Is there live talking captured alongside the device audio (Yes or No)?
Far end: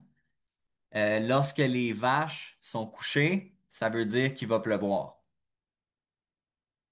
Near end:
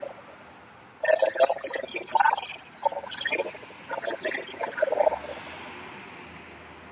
No